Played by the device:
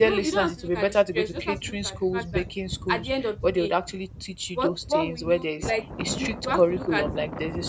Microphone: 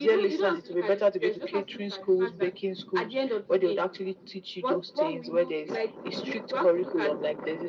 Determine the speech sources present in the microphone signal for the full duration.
echo only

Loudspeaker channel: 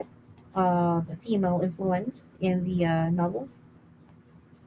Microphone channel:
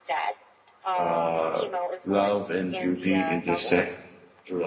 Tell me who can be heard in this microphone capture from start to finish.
both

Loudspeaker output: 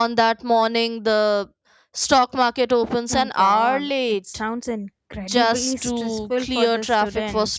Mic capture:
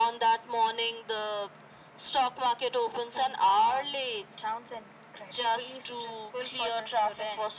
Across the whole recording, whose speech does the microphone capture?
echo only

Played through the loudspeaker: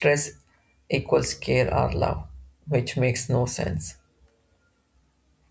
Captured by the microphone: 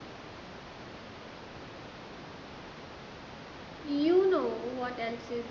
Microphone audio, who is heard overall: user only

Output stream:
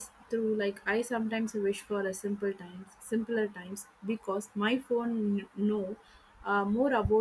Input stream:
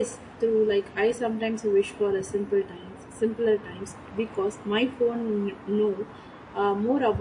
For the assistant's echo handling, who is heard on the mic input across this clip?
echo only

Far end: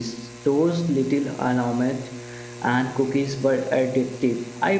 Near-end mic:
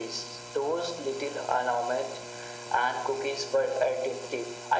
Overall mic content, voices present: echo only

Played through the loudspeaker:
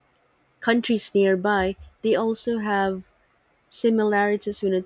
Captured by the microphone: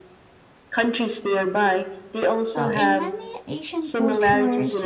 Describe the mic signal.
both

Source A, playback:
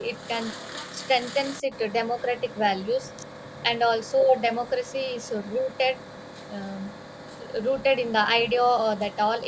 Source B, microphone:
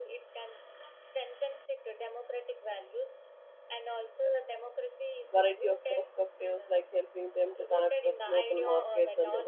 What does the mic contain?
both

